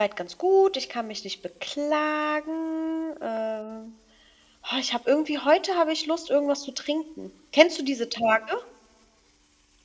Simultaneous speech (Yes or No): No